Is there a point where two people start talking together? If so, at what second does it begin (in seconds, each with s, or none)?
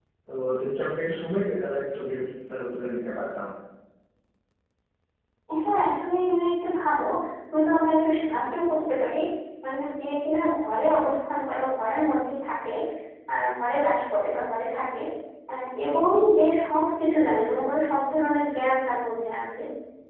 none